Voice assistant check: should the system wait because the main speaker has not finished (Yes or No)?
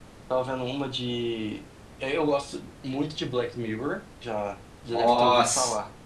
No